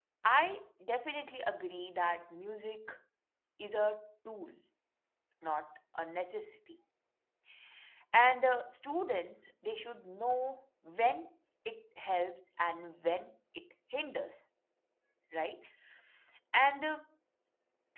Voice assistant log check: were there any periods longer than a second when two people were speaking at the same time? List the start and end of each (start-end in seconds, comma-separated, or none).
none